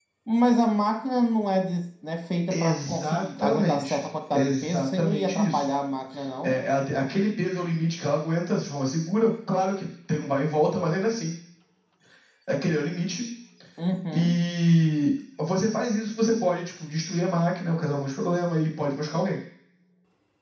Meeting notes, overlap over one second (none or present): present